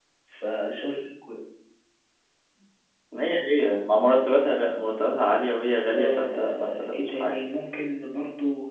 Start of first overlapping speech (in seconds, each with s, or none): 5.9 s